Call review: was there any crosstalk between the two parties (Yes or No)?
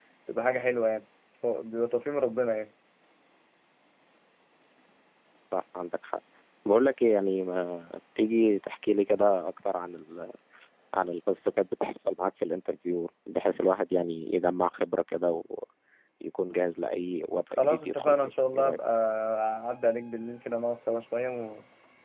Yes